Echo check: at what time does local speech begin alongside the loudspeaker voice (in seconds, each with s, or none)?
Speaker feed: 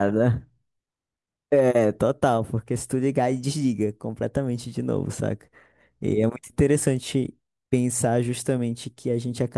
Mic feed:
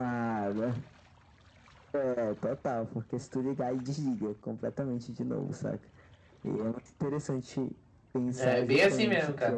8.4 s